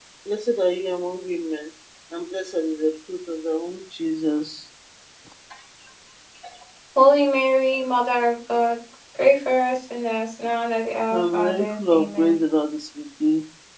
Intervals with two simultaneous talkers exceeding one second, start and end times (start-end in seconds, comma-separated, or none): 11.1-12.4